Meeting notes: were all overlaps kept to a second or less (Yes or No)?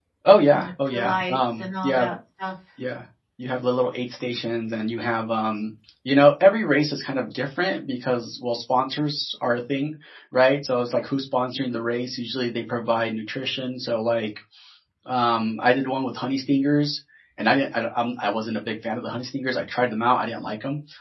No